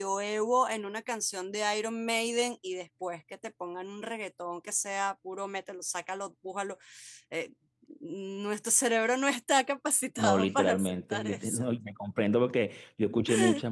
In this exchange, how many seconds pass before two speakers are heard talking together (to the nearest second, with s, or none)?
10 s